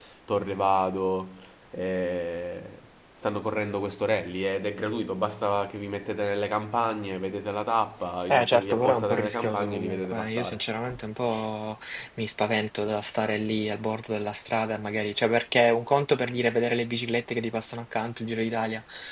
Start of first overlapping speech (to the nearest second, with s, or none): 8 s